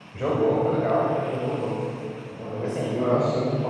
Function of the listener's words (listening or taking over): listening